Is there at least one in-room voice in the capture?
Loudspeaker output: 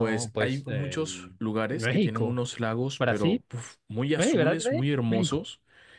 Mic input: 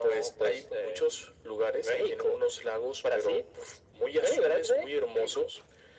No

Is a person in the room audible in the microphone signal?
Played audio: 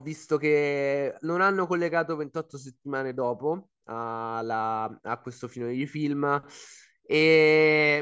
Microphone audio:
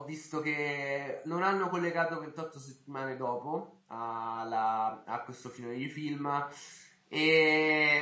No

